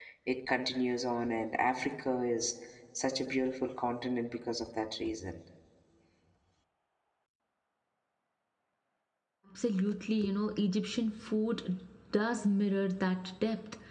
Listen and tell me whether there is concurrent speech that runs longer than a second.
No

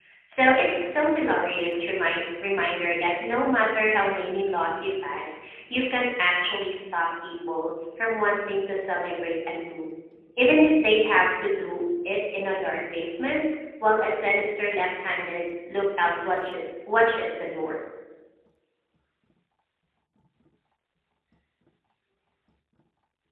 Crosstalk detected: No

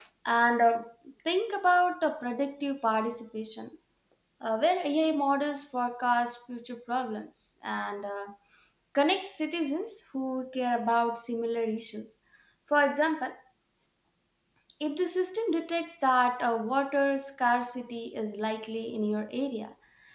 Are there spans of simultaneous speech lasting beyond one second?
No

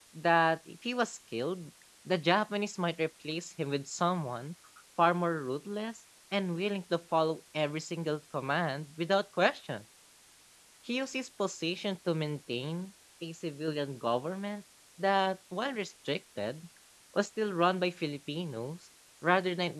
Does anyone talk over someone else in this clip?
No

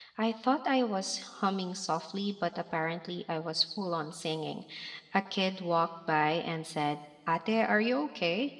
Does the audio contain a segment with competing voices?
No

